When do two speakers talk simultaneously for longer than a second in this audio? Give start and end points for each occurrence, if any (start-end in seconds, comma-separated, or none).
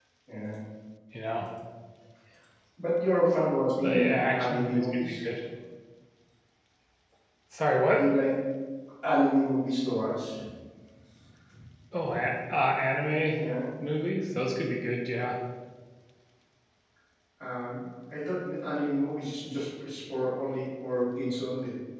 3.8-5.2